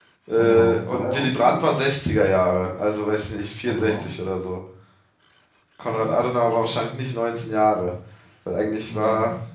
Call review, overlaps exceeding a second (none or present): present